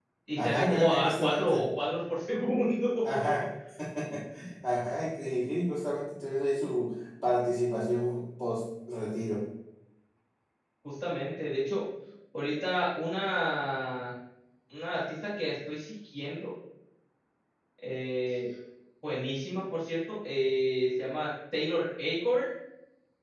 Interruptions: present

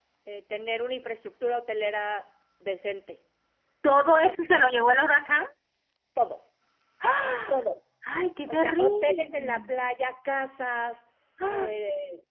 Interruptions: present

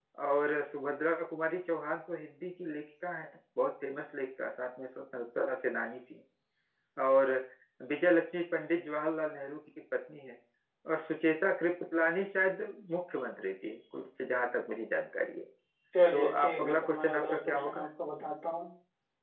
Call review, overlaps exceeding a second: present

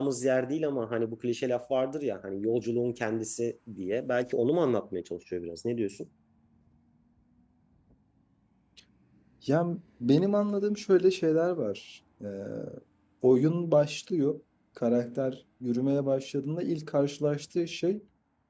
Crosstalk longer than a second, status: none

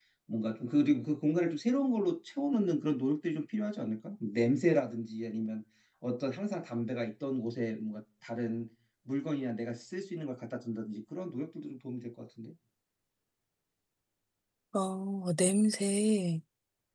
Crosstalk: none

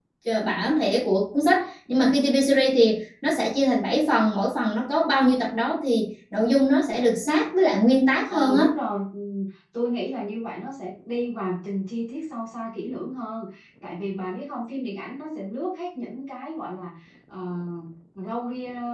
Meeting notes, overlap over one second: none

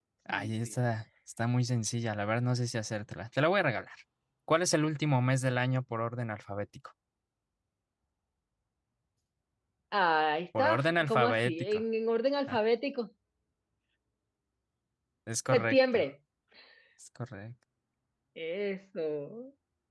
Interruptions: present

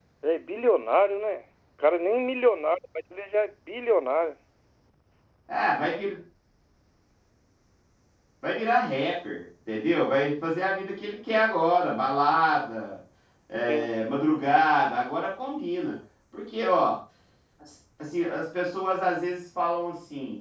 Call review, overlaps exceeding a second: none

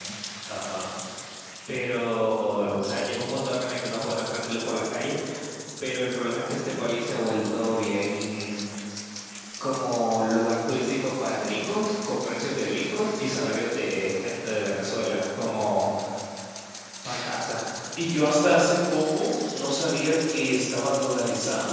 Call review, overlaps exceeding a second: none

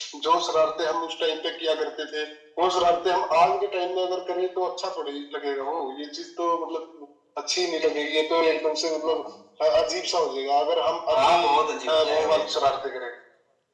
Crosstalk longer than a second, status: none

